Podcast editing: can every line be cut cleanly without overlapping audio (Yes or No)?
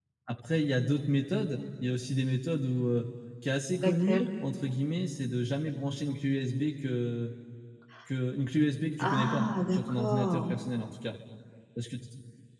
No